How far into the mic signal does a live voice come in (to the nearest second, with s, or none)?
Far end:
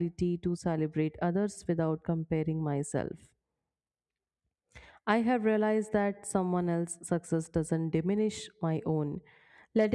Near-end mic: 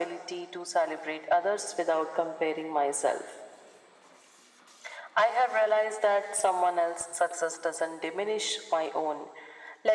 none